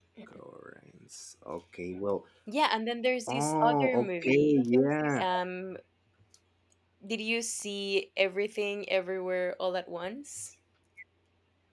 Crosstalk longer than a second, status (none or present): present